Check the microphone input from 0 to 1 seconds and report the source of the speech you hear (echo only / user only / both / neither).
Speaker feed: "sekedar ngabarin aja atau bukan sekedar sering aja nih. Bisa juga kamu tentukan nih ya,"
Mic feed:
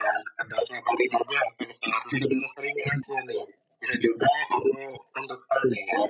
echo only